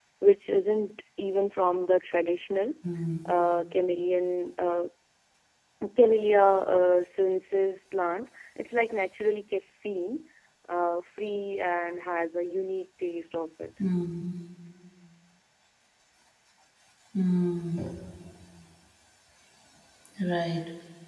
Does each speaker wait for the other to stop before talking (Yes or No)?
Yes